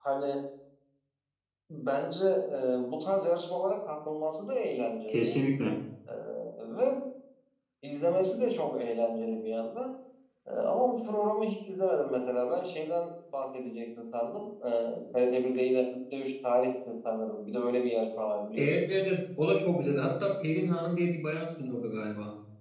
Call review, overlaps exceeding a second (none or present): none